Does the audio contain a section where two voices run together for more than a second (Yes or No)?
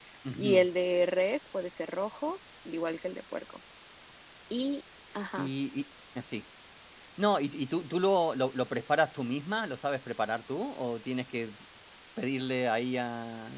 No